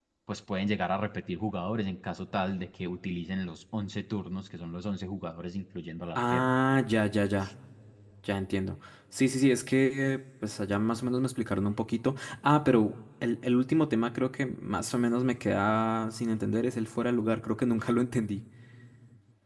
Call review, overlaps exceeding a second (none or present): none